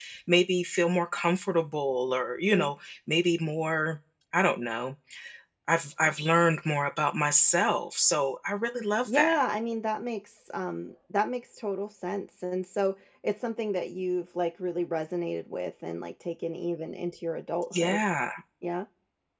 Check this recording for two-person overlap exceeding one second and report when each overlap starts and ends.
none

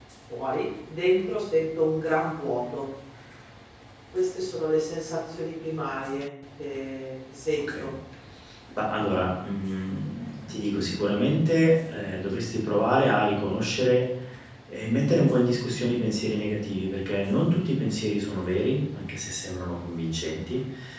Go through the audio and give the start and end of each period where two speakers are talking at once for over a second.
none

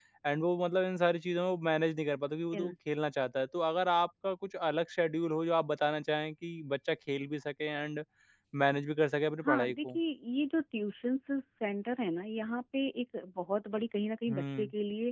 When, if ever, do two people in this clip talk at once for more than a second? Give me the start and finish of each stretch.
none

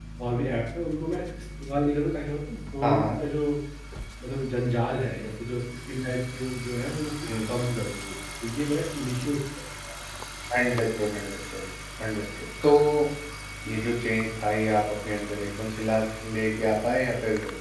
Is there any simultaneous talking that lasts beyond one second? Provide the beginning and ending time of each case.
none

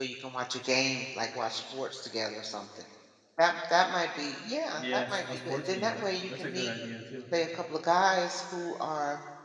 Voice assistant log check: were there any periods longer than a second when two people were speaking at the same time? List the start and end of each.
4.8-6.7

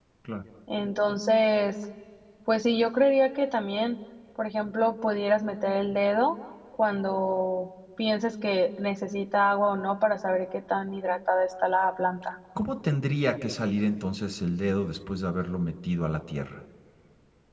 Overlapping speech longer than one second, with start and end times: none

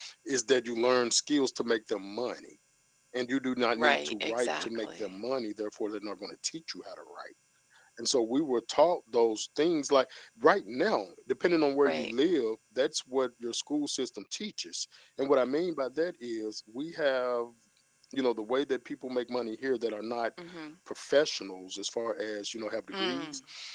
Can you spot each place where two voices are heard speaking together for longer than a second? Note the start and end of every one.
3.8-5.0

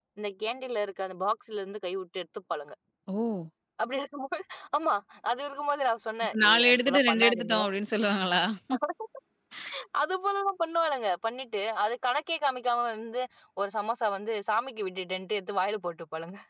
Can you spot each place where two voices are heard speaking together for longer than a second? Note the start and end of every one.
6.3-7.7

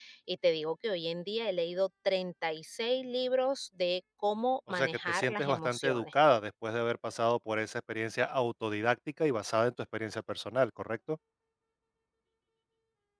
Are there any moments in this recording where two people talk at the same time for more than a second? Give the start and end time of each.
4.7-6.0

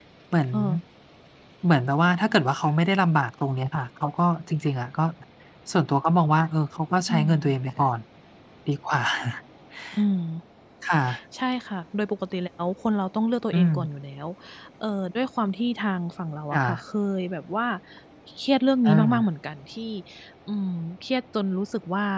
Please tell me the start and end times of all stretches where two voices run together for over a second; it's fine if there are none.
none

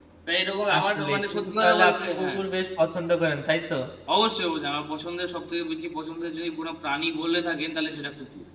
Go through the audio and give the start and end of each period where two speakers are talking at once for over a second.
0.8-2.4

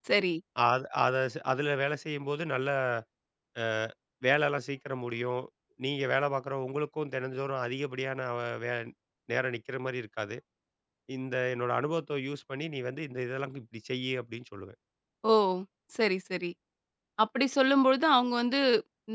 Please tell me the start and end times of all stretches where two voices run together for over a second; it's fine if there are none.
none

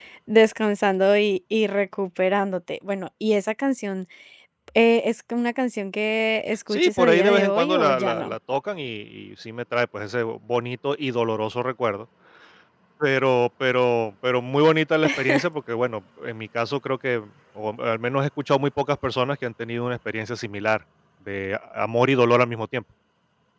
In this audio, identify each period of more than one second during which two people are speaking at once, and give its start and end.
6.7-8.3

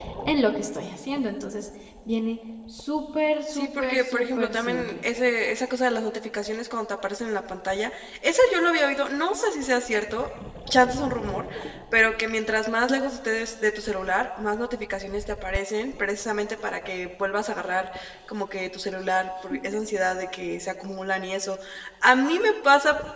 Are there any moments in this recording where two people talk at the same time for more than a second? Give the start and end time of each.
3.5-4.9

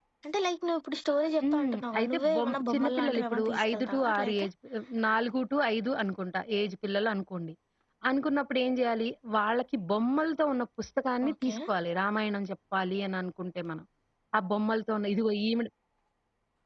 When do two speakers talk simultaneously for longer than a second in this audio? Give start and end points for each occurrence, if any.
1.4-4.5

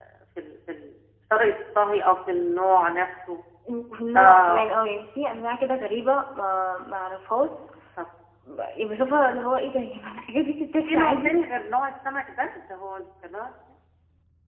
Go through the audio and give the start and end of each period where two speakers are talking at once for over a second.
none

